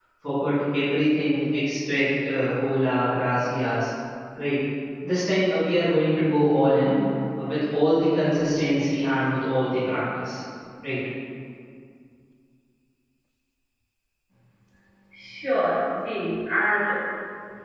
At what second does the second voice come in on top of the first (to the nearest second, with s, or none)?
none